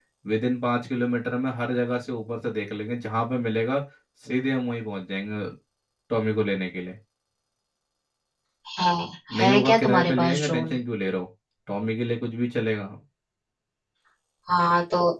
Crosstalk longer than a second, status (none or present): present